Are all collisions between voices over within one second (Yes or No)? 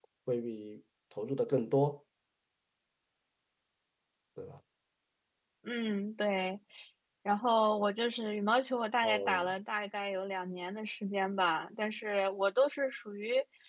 Yes